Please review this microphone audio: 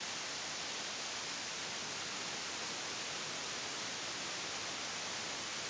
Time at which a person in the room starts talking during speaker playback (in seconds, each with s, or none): none